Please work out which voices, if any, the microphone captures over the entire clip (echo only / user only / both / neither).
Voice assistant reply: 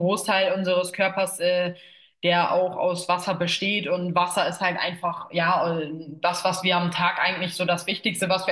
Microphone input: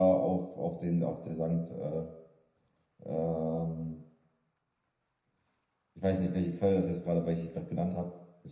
user only